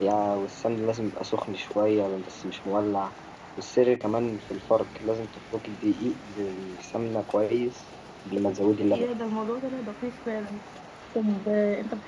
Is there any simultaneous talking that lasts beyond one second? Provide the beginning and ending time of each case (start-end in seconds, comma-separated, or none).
none